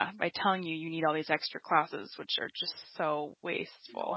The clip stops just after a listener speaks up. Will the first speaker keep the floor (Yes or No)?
No